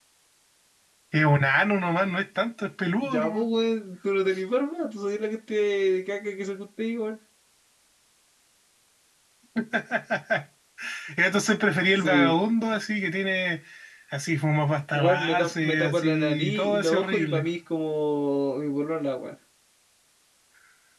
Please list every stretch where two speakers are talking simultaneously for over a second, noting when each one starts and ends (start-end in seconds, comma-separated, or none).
14.9-17.4